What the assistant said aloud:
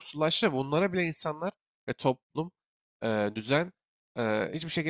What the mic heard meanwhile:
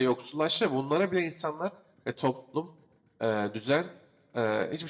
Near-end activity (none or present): none